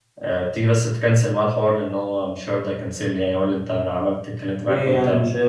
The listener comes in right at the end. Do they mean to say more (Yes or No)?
Yes